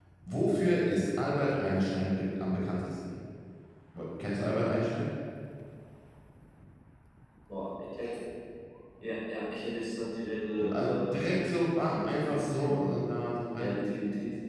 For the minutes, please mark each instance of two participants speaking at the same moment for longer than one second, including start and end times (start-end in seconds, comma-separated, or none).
10.6-13.1